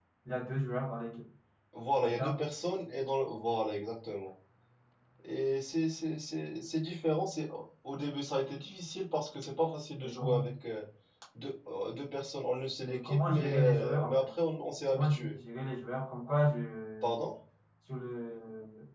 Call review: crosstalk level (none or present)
present